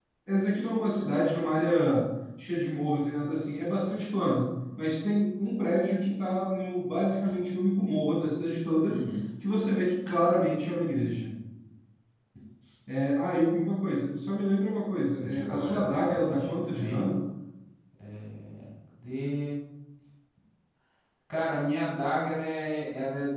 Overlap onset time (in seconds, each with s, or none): 15.2 s